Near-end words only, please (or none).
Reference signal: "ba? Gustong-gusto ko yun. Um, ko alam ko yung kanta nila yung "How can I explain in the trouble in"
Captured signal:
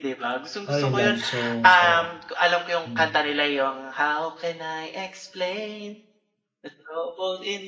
O yung love song, so mm.